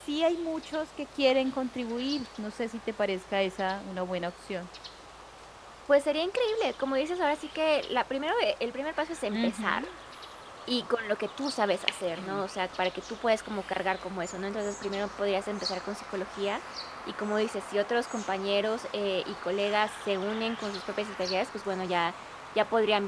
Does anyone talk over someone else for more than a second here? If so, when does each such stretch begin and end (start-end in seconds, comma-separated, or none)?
none